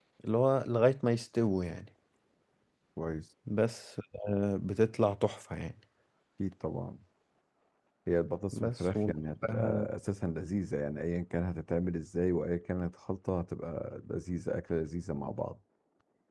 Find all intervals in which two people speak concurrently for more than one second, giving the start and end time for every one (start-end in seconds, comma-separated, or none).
8.5-9.8